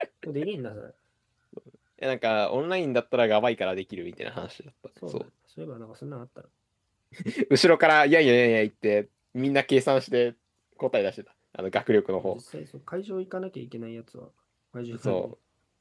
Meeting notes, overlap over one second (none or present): none